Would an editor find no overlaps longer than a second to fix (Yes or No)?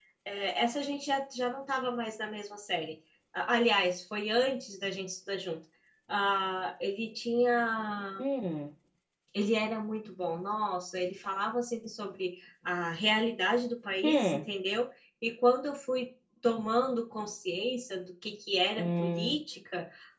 Yes